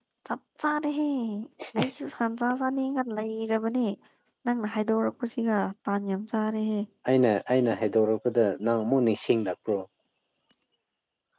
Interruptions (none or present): none